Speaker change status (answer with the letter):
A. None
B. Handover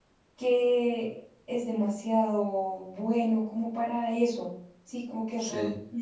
A